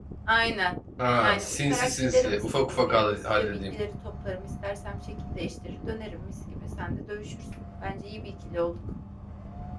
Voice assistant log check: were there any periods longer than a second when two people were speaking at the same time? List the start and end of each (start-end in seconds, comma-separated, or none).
1.2-3.7